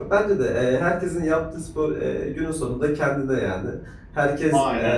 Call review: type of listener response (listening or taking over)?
listening